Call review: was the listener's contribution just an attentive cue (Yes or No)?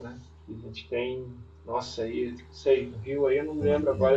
Yes